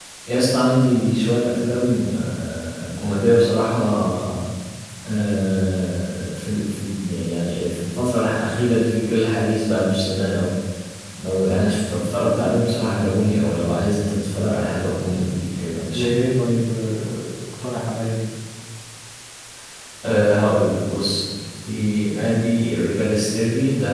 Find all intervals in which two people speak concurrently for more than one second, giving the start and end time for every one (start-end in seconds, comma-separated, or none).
none